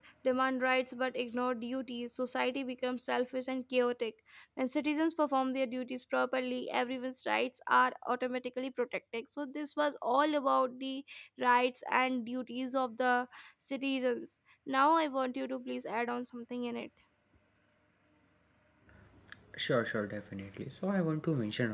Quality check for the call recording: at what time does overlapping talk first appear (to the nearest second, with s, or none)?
none